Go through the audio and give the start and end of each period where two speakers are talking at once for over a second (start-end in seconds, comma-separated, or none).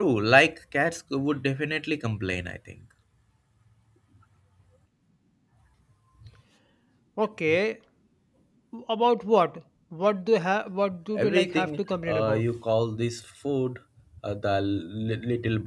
11.2-12.4